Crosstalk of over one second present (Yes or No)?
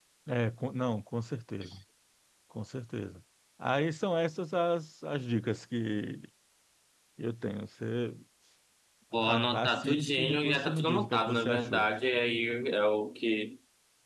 Yes